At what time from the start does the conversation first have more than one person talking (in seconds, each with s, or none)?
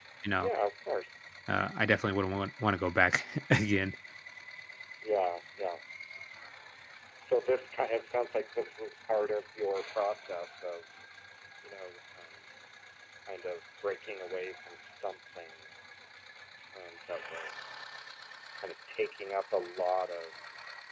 none